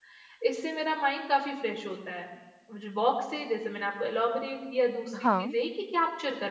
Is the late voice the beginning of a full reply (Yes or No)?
No